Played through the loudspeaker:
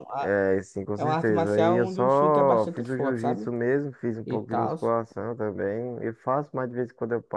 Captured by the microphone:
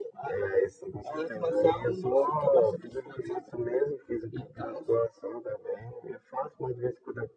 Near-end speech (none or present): none